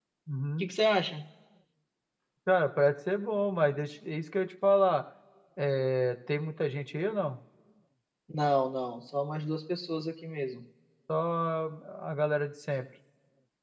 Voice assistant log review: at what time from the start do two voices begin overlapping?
none

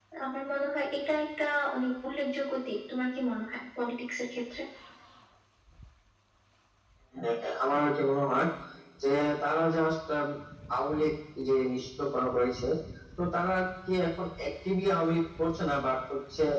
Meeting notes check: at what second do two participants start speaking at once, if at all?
none

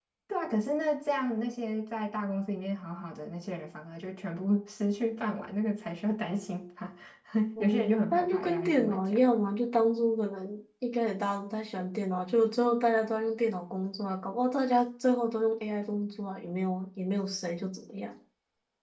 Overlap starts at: 7.6 s

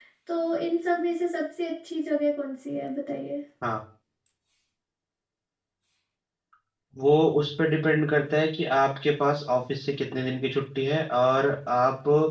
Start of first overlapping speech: none

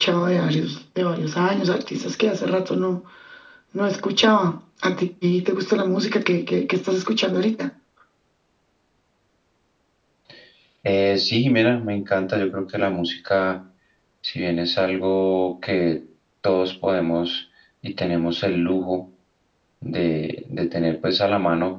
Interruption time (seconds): none

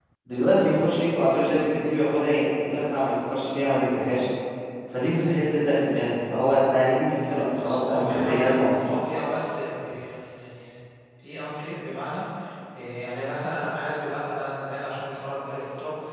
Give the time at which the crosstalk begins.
7.2 s

